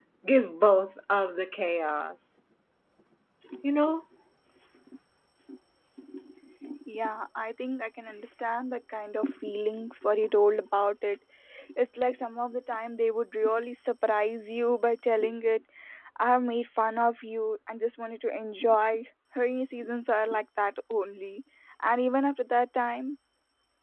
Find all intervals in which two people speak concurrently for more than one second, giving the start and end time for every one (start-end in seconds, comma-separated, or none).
none